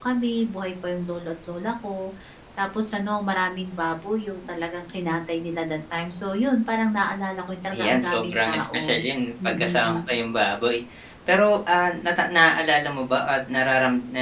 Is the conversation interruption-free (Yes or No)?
No